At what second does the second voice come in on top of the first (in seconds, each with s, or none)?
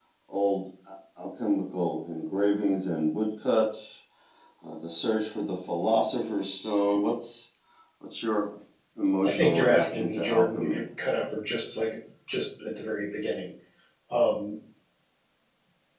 9.2 s